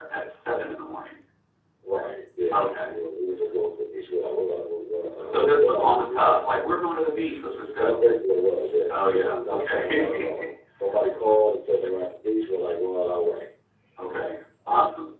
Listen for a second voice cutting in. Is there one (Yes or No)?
Yes